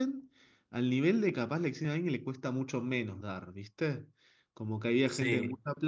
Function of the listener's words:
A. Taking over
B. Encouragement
B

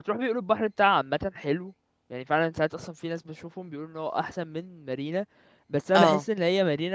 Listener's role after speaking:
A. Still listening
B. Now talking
A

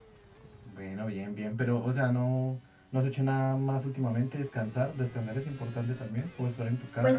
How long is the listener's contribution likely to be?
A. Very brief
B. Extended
B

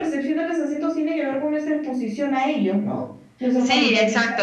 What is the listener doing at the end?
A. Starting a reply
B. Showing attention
A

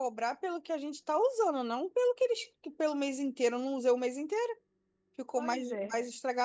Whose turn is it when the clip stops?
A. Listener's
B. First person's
B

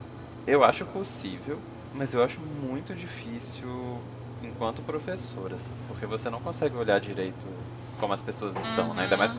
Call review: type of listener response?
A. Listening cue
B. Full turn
B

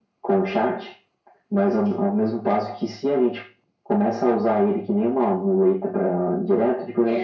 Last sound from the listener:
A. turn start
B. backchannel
A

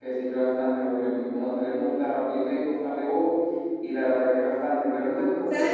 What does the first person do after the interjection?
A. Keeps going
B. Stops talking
B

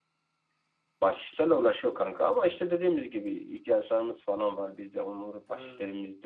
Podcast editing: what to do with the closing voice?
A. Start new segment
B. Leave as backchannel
B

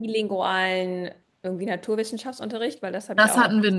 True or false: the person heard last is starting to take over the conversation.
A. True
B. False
A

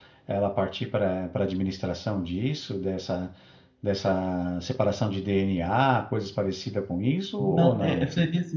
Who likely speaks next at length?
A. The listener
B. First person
A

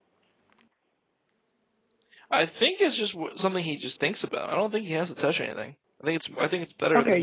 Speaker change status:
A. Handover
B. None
A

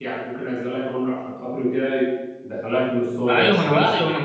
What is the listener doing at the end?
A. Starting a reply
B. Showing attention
A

